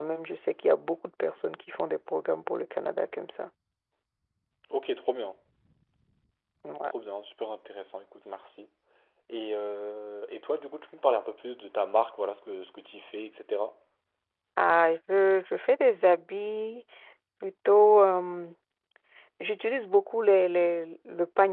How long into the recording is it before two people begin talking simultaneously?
none

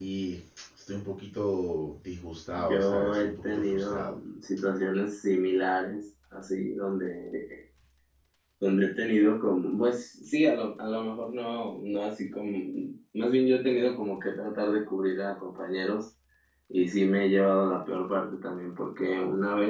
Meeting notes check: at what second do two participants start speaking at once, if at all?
2.6 s

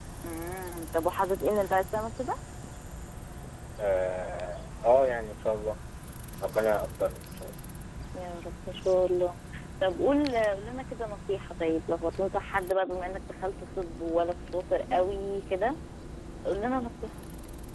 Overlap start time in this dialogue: none

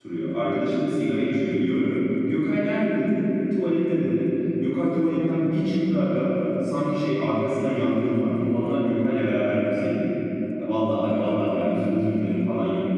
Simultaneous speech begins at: none

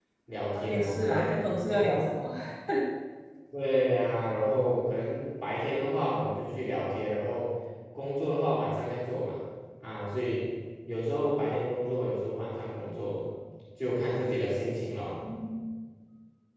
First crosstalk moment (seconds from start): 0.5 s

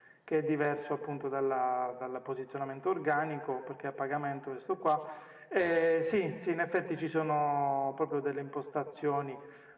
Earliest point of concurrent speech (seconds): none

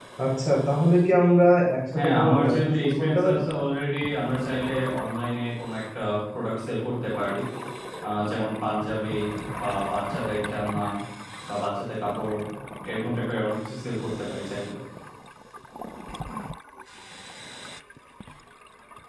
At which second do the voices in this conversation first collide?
2.0 s

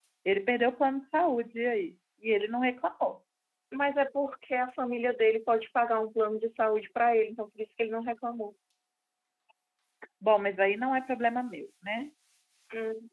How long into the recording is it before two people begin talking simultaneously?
none

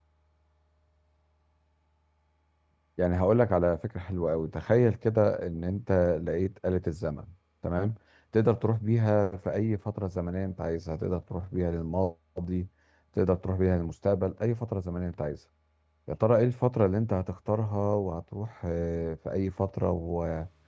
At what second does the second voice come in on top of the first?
none

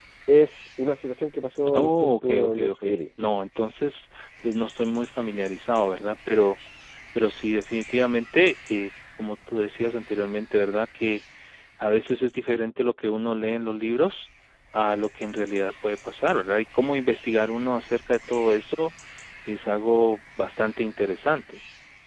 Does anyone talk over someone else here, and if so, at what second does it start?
1.7 s

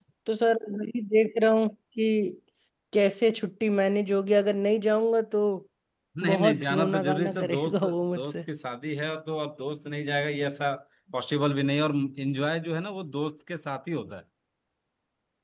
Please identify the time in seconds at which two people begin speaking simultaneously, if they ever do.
6.2 s

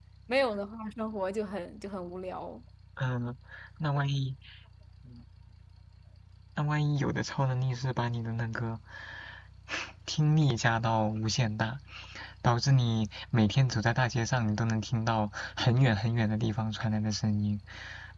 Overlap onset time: none

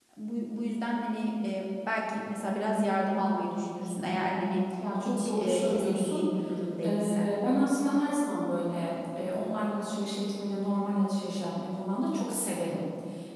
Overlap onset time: 5.0 s

